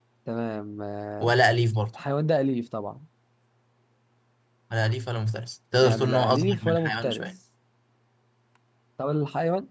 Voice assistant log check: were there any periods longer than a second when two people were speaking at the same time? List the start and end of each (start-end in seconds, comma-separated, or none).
5.8-7.3